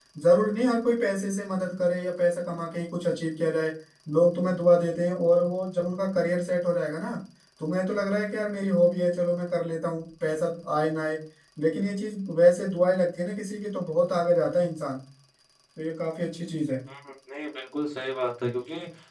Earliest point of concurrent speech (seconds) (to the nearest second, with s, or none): none